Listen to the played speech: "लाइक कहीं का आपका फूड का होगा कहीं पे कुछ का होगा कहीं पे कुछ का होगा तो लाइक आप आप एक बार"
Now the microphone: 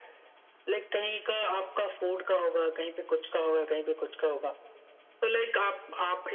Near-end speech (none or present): none